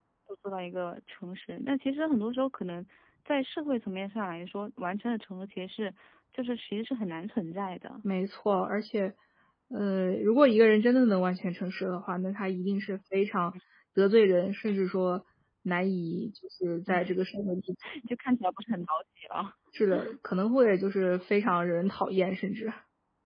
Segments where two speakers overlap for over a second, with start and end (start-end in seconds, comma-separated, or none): none